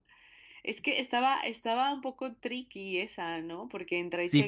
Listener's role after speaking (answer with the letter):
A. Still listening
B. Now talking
B